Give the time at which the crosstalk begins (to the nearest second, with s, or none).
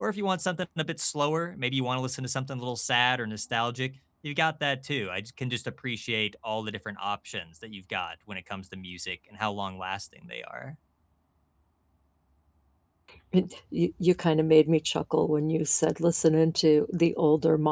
none